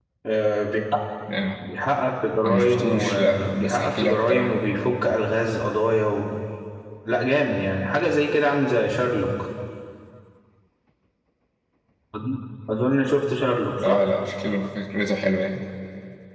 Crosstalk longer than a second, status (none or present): present